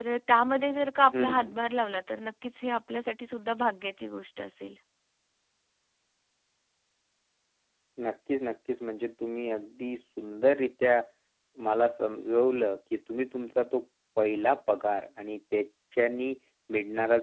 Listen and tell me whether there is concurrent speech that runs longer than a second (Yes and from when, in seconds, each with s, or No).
No